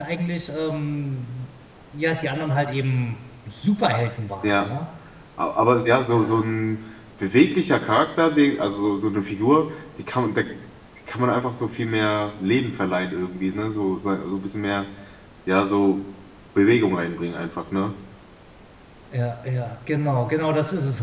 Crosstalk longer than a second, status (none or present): none